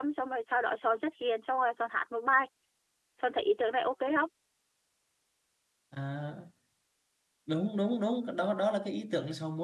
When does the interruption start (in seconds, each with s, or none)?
none